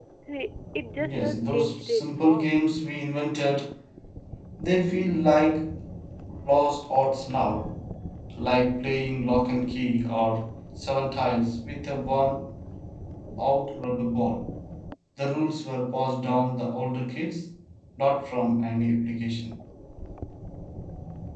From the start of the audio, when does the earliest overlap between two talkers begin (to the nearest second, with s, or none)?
1 s